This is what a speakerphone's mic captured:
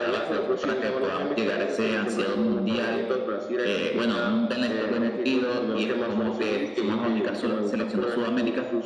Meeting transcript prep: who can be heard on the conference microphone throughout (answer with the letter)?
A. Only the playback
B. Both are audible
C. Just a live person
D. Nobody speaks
A